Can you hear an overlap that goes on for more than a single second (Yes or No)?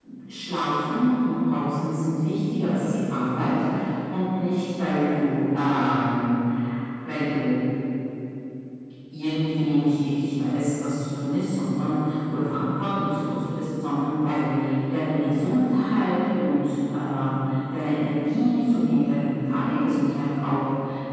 No